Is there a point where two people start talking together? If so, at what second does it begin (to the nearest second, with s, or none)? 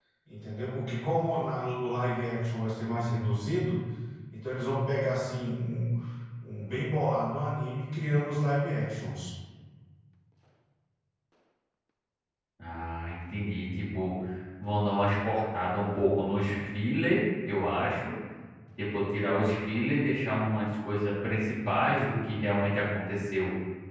none